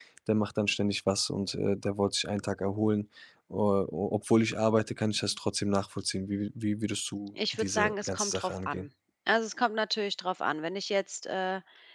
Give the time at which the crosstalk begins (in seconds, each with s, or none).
7.3 s